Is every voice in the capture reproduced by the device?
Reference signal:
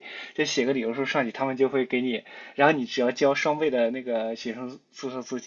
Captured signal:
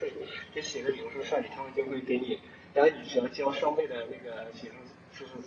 Yes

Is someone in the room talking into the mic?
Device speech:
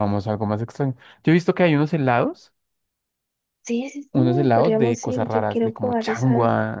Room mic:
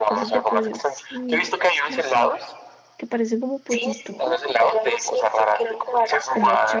Yes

